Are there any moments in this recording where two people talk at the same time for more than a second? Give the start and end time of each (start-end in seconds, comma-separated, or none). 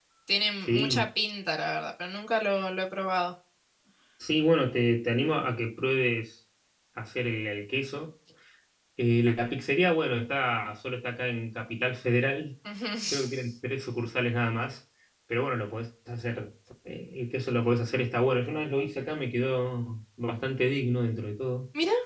none